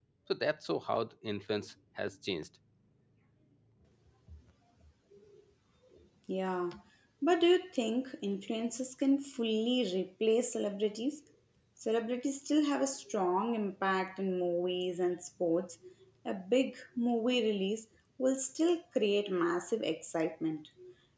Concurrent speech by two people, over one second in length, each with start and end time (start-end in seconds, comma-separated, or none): none